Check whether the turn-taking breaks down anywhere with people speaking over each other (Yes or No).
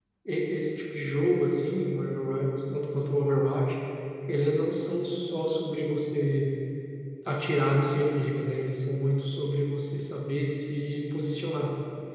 No